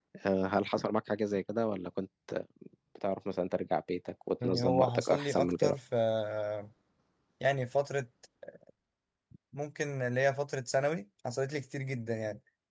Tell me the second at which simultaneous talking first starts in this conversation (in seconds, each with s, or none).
4.4 s